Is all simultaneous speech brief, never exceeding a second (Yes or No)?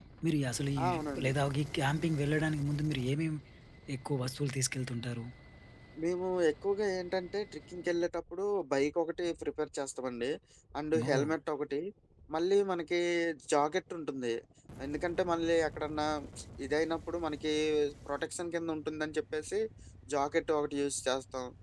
Yes